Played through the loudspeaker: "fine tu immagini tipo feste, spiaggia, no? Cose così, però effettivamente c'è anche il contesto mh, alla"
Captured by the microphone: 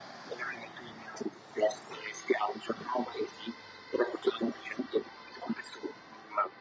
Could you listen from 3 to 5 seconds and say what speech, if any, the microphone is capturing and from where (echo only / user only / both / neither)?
echo only